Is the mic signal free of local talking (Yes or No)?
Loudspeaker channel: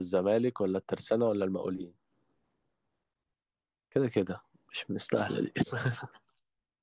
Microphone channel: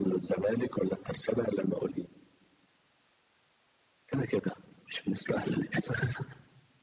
Yes